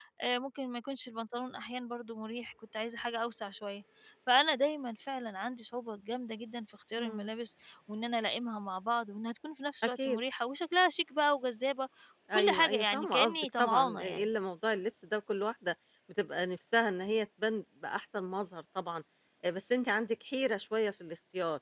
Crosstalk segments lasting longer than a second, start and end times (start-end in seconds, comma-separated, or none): 12.3-14.3